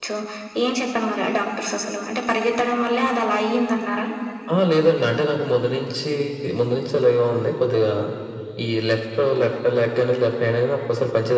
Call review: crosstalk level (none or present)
none